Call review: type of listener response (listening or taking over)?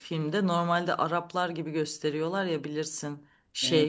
listening